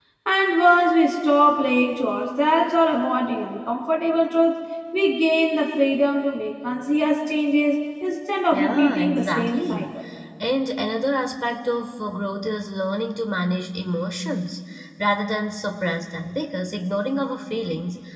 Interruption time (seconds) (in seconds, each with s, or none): 8.5 s